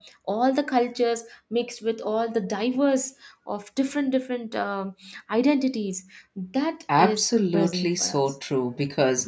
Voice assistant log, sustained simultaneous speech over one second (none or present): present